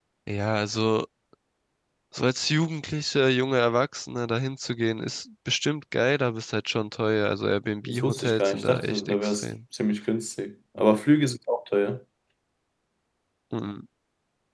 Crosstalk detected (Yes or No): Yes